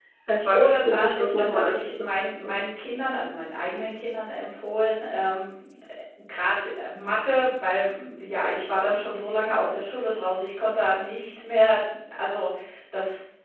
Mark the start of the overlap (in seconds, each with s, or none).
0.5 s